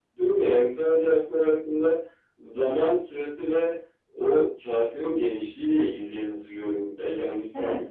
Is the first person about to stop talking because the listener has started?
Yes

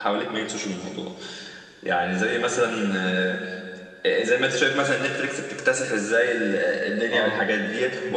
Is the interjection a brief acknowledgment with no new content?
Yes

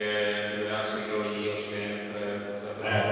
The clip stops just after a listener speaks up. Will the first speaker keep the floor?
No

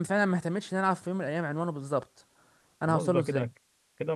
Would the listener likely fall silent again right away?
No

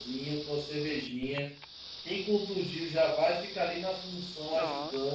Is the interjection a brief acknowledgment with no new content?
Yes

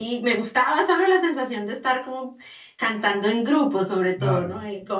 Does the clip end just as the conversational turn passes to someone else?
No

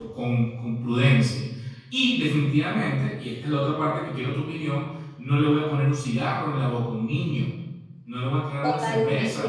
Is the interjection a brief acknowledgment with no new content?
No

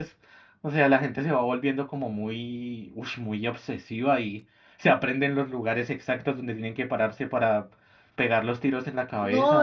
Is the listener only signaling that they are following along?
No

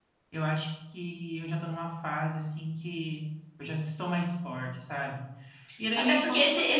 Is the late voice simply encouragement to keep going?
No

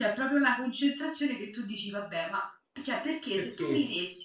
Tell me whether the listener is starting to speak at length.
No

